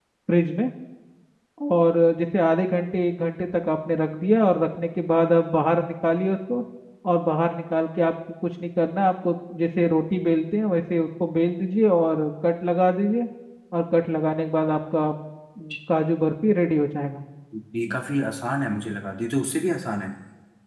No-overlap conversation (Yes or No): Yes